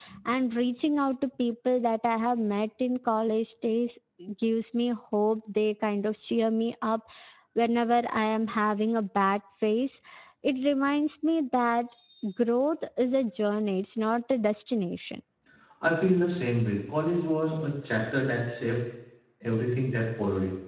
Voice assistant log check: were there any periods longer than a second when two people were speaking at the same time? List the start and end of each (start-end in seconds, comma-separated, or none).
none